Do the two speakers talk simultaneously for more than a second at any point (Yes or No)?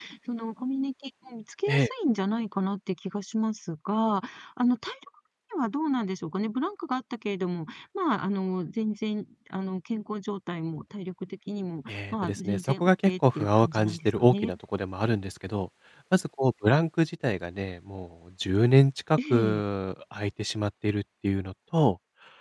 Yes